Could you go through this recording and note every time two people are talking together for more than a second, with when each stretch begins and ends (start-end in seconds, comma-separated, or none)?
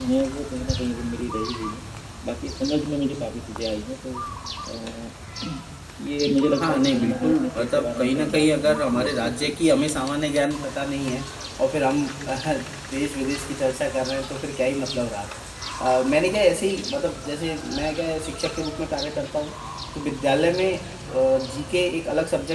6.6-9.5